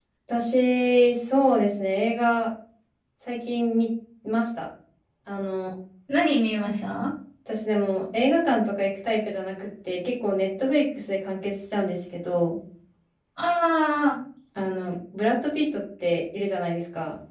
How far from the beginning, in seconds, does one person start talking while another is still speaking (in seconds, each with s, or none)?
none